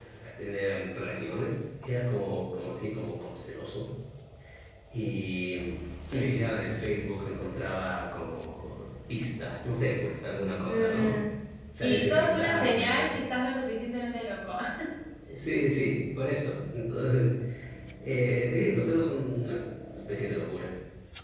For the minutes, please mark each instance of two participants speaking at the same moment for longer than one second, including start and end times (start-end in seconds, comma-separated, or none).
11.8-13.2